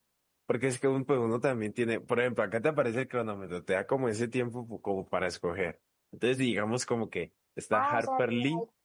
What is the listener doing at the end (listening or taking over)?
taking over